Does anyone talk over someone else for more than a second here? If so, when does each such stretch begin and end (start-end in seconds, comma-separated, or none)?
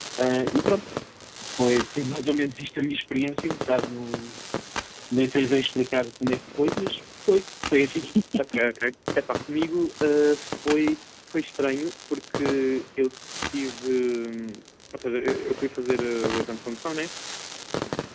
none